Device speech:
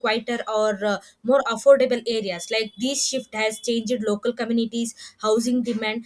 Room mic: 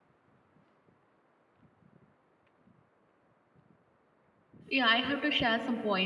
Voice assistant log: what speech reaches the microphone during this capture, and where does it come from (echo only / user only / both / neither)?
user only